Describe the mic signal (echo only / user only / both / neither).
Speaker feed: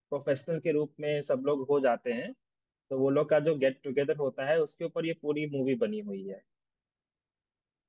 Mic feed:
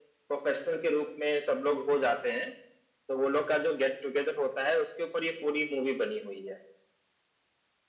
echo only